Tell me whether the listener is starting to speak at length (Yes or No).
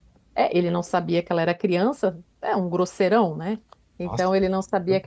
No